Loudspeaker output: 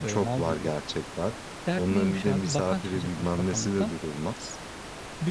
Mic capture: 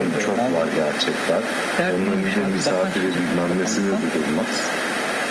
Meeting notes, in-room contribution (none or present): none